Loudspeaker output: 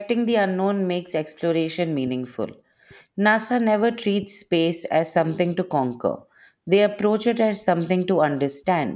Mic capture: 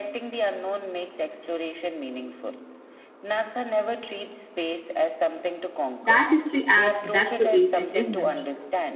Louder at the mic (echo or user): user